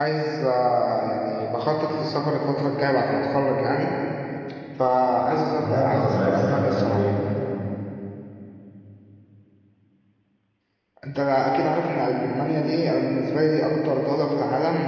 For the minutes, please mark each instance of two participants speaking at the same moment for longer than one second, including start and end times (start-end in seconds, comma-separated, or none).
5.5-7.1